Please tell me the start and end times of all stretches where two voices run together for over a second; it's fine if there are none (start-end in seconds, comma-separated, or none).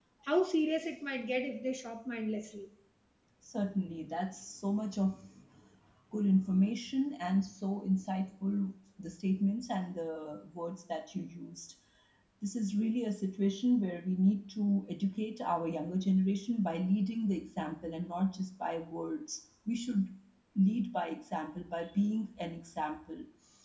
none